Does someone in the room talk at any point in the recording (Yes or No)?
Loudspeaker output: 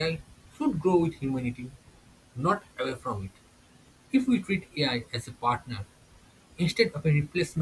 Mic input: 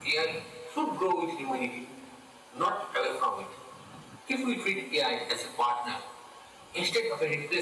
No